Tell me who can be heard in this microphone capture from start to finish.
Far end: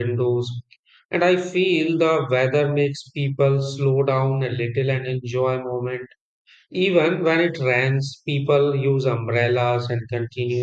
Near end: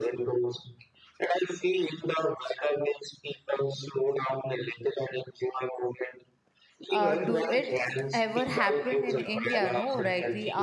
both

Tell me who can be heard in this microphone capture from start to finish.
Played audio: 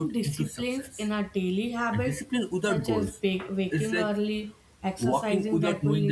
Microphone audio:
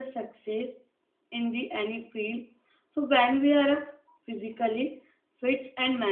user only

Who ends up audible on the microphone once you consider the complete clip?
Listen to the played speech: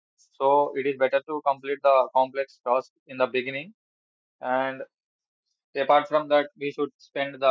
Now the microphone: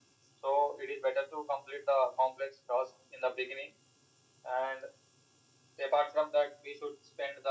echo only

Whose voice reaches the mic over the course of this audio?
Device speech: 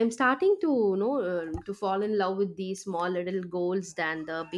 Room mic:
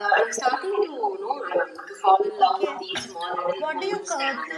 both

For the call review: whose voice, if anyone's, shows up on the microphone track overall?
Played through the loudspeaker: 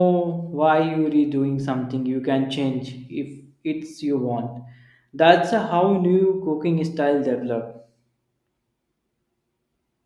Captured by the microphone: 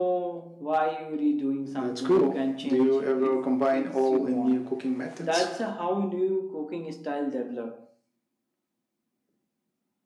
both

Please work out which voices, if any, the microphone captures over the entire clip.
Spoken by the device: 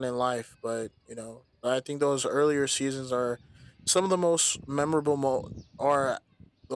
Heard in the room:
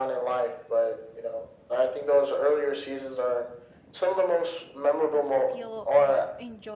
both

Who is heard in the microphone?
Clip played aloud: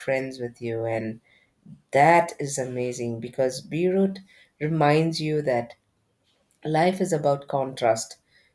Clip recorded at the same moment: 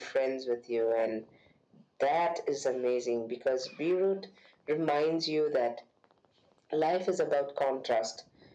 echo only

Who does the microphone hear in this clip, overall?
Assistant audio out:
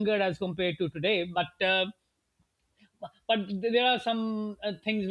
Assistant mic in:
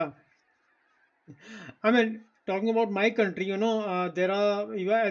user only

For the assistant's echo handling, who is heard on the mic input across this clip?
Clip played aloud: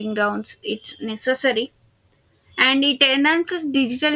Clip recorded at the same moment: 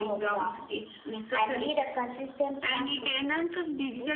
both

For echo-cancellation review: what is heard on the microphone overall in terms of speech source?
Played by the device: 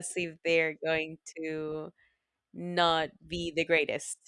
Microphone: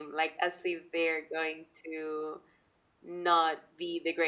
echo only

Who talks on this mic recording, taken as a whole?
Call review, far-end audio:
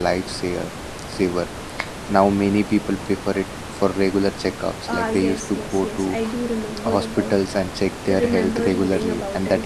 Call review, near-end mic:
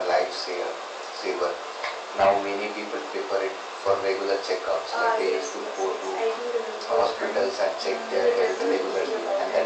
both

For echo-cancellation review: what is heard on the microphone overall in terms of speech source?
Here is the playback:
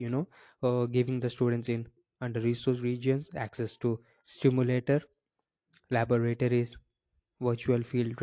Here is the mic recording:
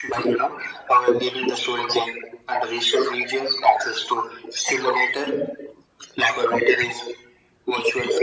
echo only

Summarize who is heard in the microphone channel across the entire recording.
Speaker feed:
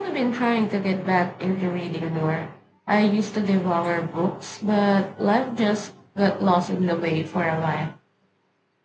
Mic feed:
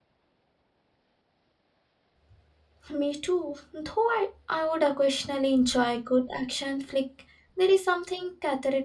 user only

